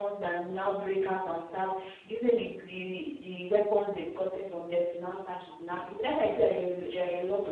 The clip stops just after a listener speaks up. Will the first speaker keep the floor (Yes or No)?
Yes